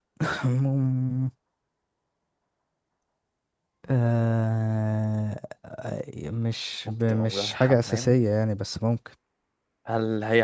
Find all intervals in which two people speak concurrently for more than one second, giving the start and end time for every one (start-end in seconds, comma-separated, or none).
6.8-8.2